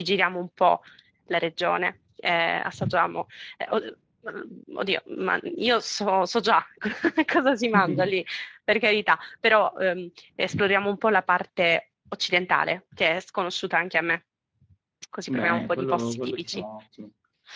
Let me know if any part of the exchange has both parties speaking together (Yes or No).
Yes